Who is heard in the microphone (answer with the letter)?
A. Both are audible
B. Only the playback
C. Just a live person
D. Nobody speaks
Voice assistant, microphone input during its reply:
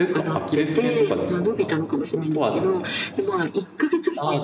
A